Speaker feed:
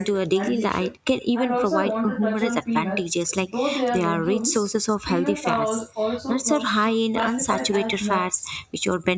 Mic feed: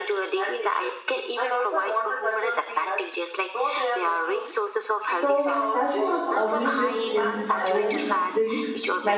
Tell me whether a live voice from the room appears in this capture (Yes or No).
Yes